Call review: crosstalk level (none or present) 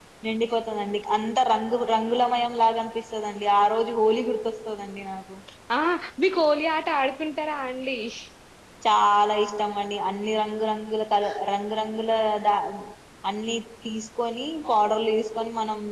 none